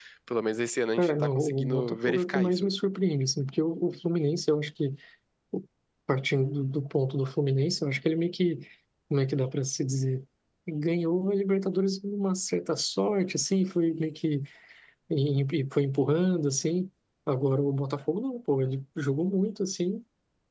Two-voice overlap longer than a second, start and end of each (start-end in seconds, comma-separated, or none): 1.0-2.7